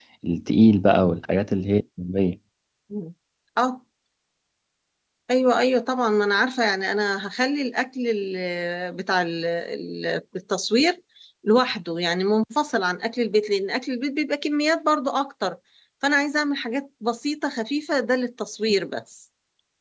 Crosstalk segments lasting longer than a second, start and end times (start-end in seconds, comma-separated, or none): none